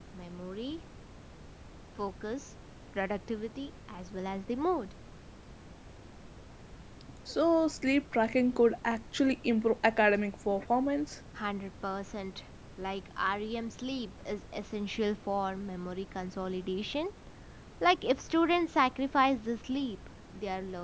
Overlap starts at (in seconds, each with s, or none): none